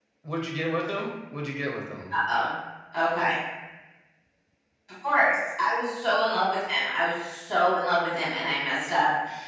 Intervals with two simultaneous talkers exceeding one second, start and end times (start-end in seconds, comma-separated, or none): none